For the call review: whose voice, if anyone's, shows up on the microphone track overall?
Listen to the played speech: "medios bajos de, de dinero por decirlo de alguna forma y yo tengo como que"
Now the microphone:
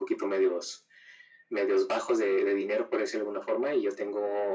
echo only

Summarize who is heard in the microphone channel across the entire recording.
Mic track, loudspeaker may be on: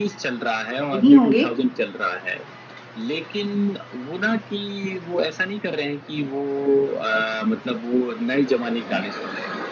both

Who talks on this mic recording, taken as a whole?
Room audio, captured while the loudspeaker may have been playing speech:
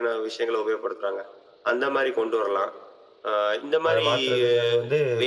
both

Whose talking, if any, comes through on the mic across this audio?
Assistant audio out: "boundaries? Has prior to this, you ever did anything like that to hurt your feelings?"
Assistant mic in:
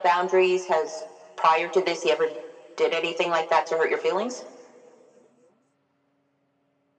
echo only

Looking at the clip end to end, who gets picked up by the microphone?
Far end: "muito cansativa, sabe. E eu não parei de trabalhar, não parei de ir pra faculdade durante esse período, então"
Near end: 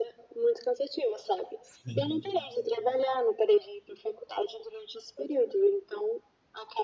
both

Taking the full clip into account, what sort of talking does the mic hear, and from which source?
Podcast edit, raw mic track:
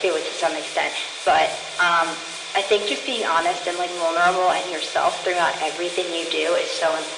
echo only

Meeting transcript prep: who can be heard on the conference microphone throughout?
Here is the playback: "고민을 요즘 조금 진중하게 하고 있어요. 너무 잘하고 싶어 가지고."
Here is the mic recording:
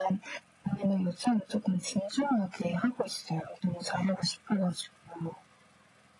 echo only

